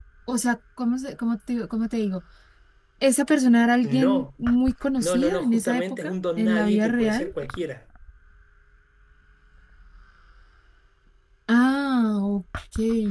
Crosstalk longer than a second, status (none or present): present